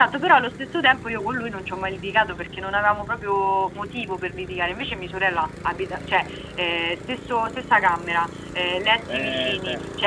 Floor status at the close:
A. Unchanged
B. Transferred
B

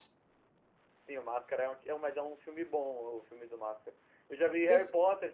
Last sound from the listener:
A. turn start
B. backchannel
B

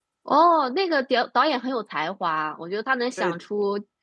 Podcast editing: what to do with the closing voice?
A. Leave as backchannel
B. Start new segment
A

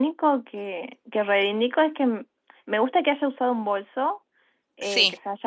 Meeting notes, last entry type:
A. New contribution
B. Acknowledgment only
B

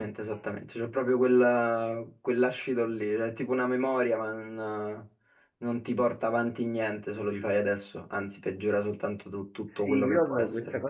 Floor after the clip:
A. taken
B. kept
A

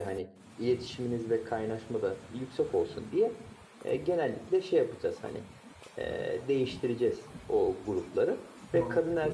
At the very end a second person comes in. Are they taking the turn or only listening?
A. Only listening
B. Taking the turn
A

